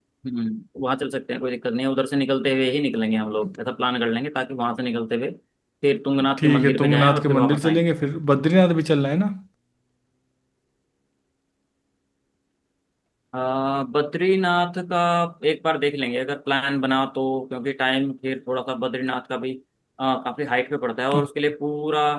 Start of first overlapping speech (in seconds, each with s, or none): 6.4 s